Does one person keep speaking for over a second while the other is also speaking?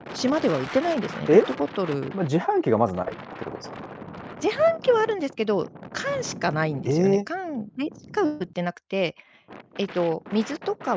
No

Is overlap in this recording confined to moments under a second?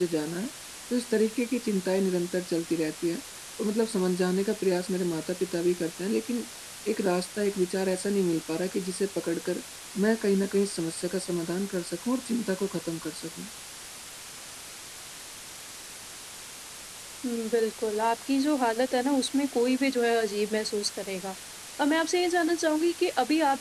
Yes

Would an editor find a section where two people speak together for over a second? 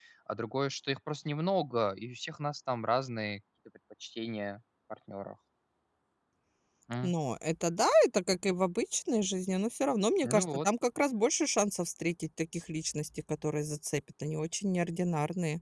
No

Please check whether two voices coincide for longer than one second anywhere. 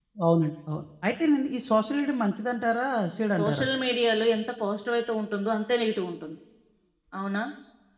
No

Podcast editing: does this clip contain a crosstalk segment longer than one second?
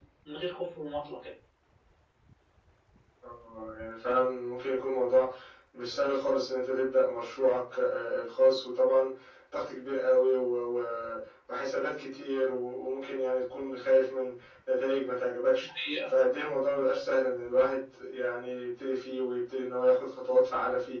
No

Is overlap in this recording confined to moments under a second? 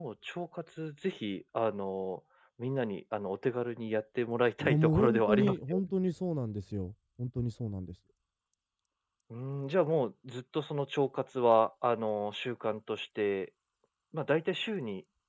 No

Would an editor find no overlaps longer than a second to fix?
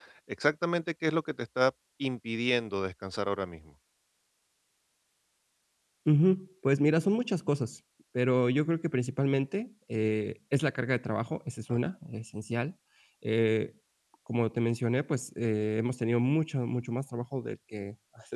Yes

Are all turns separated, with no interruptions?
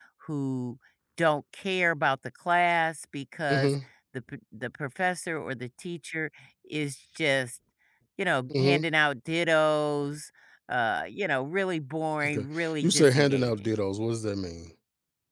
No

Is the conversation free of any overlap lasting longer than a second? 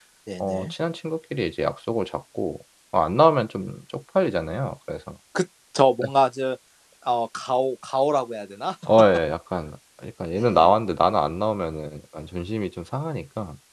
Yes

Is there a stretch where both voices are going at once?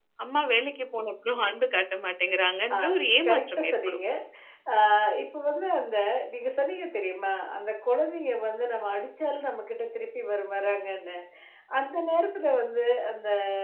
Yes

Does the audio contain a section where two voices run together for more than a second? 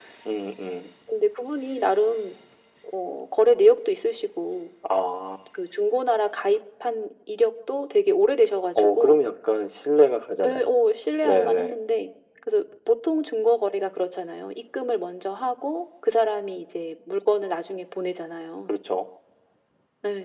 No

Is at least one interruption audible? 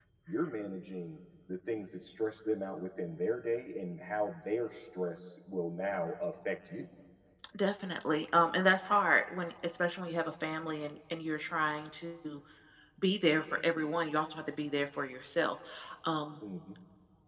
No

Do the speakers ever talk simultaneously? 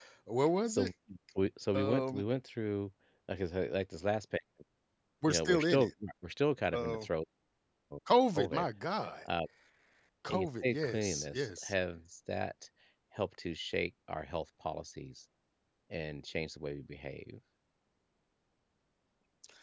Yes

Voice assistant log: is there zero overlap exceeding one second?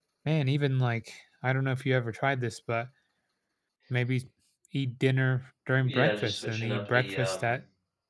No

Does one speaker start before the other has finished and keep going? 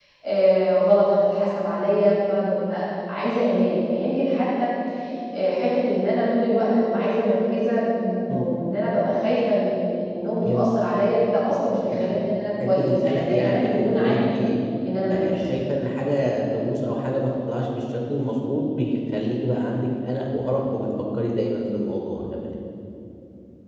Yes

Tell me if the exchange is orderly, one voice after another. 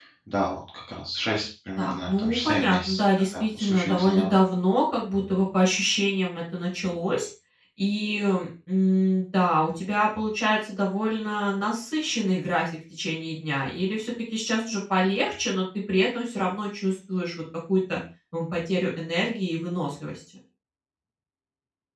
No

